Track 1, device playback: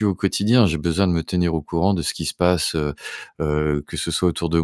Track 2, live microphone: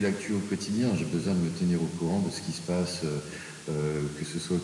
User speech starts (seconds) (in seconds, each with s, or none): none